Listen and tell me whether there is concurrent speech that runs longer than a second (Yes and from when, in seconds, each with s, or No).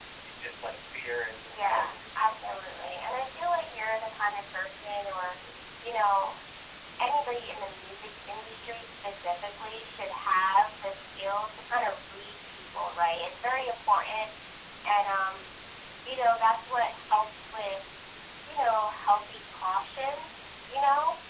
Yes, from 1.5 s